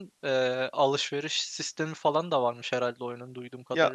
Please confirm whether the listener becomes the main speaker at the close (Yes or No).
Yes